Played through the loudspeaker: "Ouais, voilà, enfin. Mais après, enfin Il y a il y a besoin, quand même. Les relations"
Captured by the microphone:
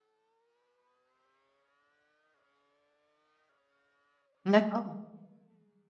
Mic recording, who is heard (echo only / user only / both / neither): user only